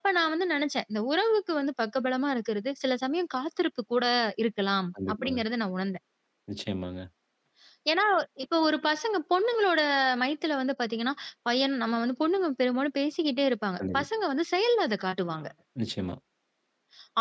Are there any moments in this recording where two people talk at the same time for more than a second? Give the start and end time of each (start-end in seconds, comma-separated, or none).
none